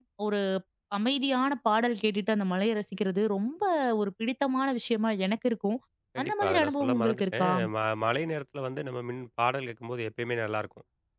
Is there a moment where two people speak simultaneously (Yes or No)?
Yes